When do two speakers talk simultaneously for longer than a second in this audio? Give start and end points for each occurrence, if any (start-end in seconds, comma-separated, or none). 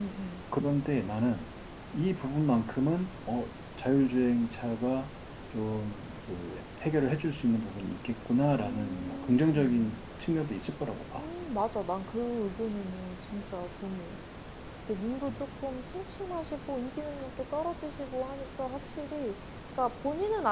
8.6-9.9